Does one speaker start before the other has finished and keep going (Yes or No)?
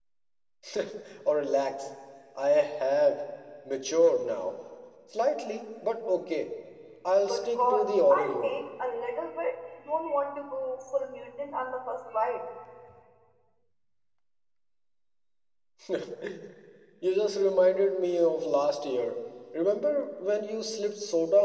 Yes